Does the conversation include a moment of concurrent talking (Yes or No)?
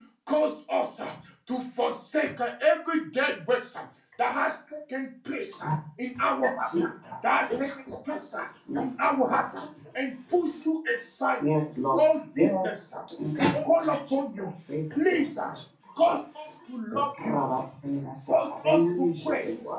Yes